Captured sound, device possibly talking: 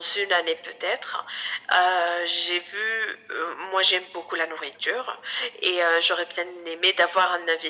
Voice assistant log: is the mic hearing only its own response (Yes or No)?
Yes